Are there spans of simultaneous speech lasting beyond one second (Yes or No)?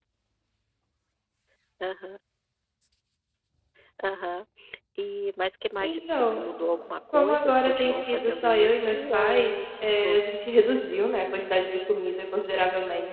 Yes